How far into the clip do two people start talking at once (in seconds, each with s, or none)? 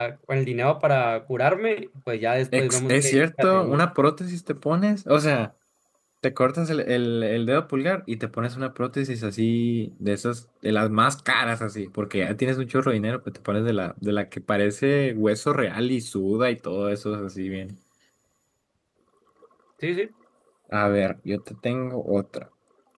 2.5 s